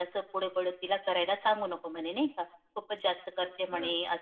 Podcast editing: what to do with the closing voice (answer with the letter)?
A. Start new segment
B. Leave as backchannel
B